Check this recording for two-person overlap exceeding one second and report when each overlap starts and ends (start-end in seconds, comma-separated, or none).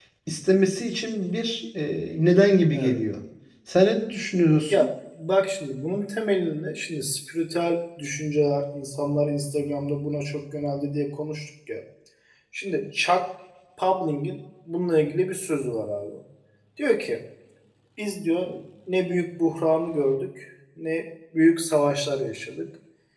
none